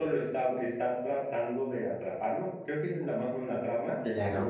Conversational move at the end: listening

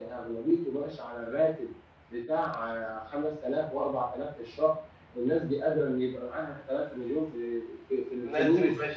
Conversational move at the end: taking over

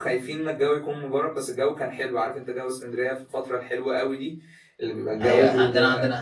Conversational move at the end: taking over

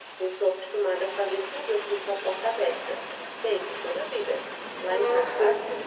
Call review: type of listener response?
listening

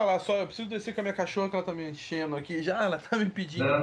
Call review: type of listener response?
listening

